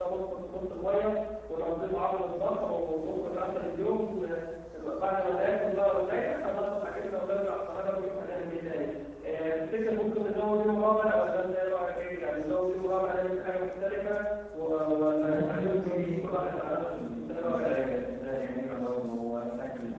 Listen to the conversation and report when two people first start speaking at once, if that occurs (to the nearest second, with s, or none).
15 s